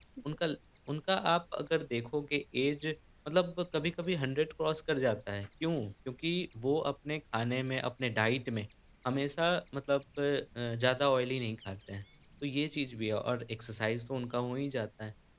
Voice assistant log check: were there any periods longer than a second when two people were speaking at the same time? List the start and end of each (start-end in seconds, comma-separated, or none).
none